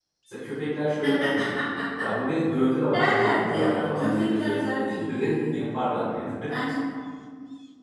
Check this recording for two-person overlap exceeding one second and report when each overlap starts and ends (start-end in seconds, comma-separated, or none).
2.9-5.7